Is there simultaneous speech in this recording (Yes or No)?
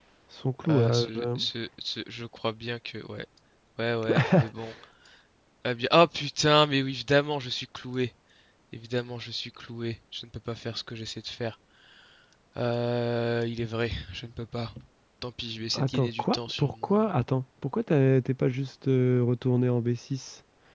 Yes